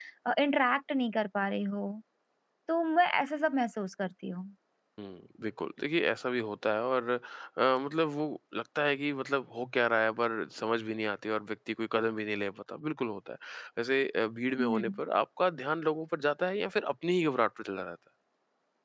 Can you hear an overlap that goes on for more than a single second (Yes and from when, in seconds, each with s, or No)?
No